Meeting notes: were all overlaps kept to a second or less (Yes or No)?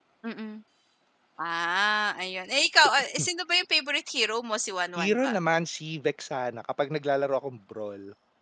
Yes